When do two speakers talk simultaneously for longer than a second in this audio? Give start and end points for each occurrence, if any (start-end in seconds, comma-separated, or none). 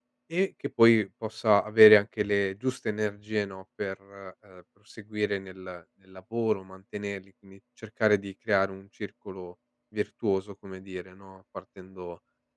none